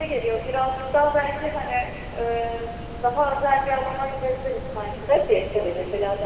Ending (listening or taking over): taking over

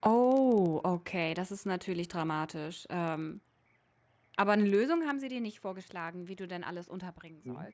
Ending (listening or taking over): taking over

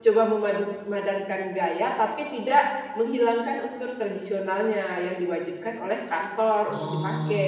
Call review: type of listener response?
taking over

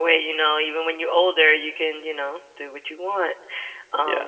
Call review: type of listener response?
taking over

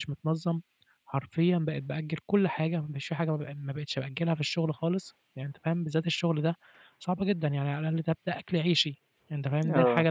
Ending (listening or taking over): listening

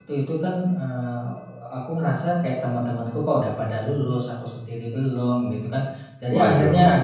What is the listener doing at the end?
listening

